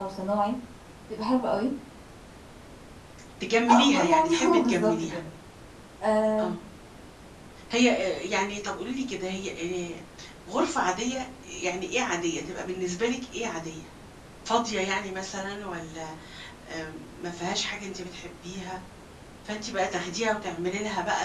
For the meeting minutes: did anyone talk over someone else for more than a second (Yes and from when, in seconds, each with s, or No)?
Yes, from 3.9 s